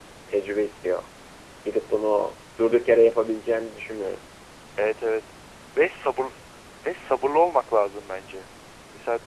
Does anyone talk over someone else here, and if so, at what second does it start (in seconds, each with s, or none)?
none